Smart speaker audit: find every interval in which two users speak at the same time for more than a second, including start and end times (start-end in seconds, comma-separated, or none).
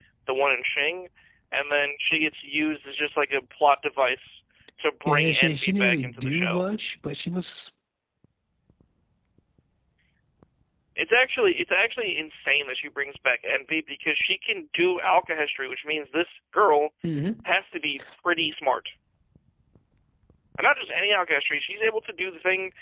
5.0-6.6